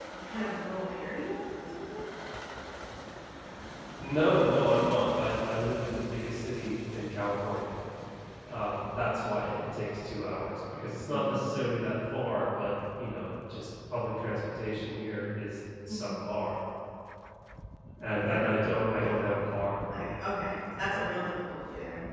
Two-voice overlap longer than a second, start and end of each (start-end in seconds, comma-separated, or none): none